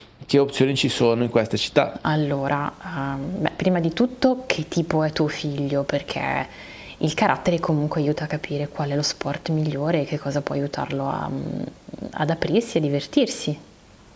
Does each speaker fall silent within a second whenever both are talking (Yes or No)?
Yes